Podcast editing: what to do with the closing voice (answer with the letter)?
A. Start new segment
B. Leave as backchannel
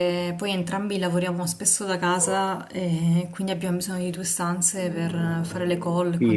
A